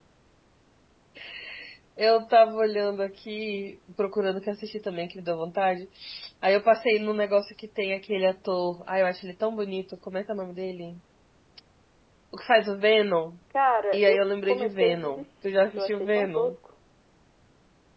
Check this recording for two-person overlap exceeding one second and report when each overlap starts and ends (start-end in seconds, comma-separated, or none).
13.9-16.5